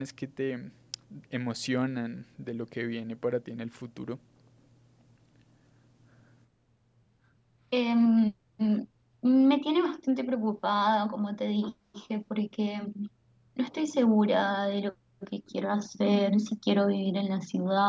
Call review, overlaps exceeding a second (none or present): none